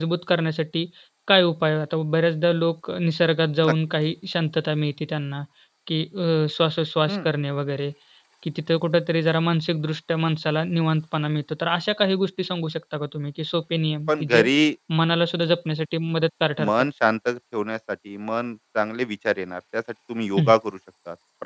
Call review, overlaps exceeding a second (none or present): none